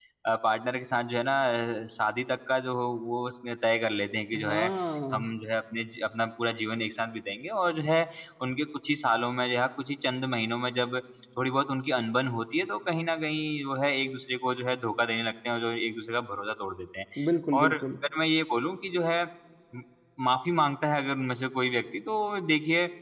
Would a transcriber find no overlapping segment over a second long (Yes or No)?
Yes